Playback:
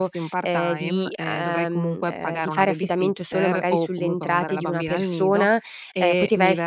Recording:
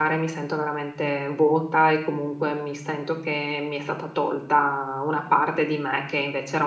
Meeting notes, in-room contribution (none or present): present